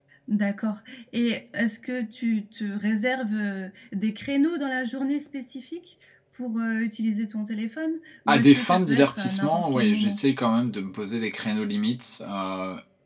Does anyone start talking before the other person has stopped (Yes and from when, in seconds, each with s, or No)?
Yes, from 8.3 s